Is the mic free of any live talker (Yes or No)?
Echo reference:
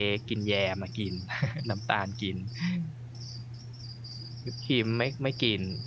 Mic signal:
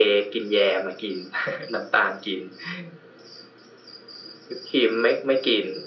Yes